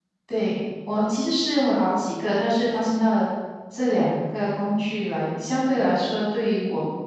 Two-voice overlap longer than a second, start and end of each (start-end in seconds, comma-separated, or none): none